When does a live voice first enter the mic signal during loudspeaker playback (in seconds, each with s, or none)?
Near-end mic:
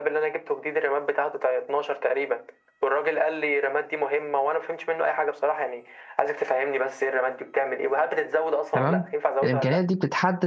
8.7 s